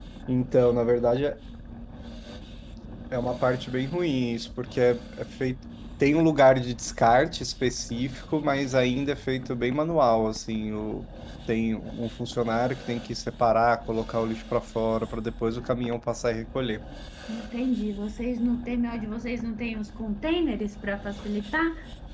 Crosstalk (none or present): none